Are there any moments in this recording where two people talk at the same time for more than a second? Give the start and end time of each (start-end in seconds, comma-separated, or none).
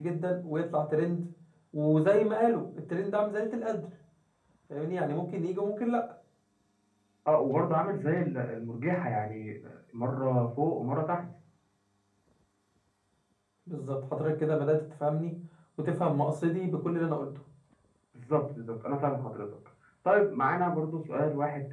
none